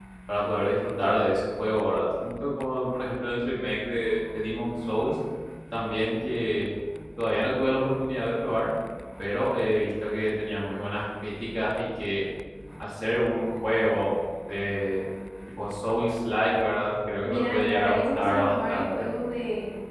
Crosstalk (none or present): present